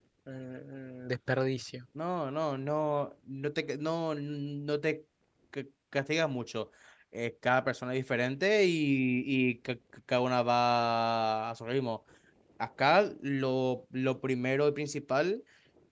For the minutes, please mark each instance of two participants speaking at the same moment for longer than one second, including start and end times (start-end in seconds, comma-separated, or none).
none